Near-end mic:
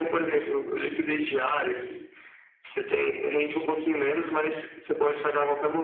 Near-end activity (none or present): none